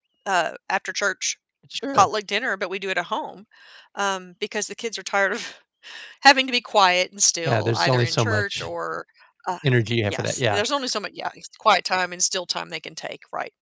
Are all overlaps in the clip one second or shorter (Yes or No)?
No